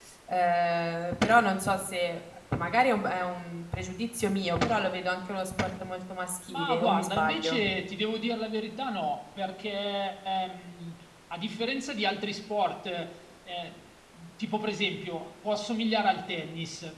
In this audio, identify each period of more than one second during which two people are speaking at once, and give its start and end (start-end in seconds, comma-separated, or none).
6.5-7.7